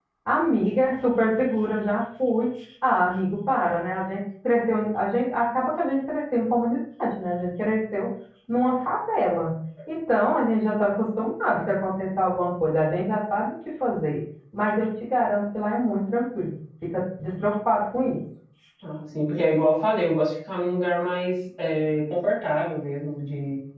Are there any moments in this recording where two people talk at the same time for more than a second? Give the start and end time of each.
none

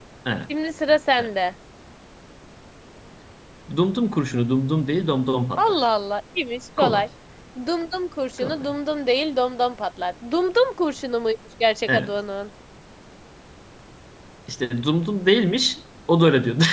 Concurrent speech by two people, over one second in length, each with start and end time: none

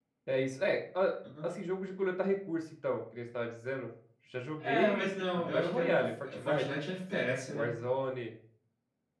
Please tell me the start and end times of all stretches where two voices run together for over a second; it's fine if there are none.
4.6-6.7

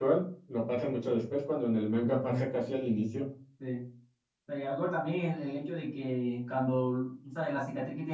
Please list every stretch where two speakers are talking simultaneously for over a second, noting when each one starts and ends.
none

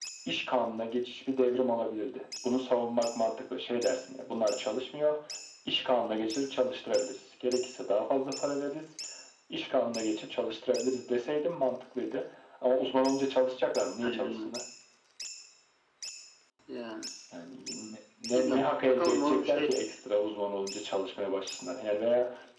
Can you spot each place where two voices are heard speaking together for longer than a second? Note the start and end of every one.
18.4-19.7

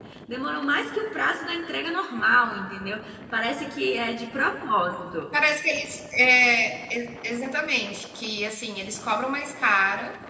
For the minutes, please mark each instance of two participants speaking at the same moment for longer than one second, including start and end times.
none

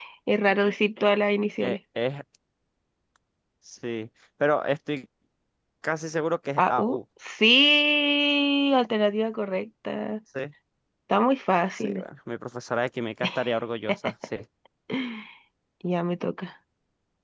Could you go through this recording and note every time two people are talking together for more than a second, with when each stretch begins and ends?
none

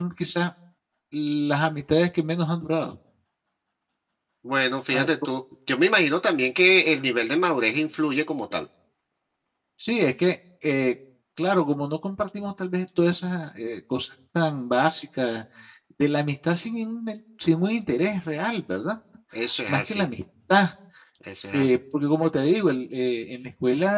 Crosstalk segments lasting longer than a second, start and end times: none

